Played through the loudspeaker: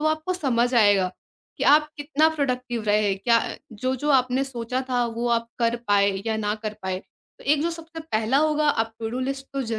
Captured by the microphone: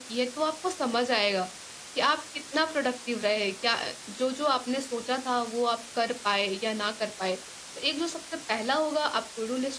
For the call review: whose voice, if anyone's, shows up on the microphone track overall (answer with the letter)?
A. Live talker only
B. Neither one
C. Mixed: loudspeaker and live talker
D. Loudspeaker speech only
D